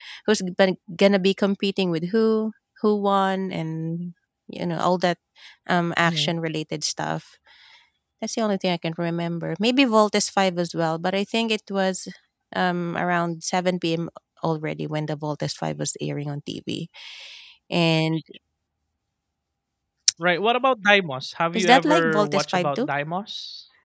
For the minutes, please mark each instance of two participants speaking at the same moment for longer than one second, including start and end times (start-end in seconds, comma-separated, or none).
21.5-22.9